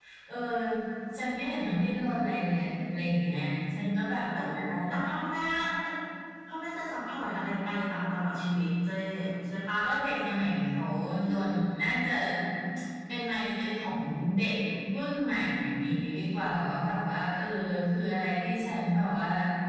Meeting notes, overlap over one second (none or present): none